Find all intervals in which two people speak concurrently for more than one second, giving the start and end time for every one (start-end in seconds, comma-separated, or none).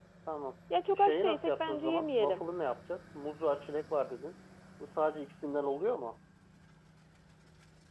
1.0-2.4